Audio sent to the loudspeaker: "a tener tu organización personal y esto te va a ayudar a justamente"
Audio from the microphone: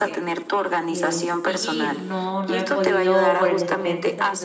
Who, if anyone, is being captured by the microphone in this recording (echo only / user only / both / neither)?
both